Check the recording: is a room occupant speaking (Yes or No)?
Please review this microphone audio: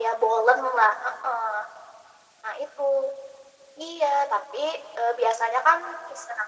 No